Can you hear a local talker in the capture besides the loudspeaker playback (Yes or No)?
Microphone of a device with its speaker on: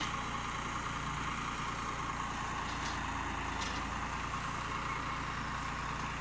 No